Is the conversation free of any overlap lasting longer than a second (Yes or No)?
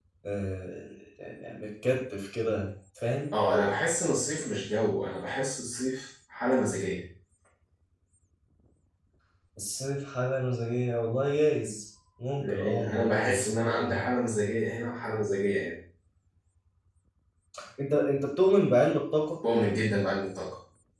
No